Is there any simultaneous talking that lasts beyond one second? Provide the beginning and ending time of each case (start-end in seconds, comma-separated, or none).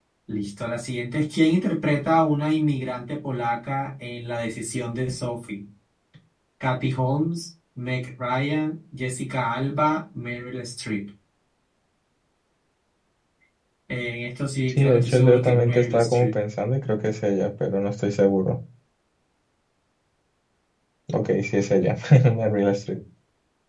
14.7-16.4